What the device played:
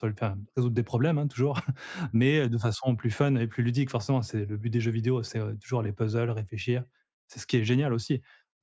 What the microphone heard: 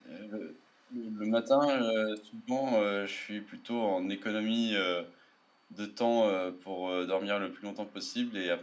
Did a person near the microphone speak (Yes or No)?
Yes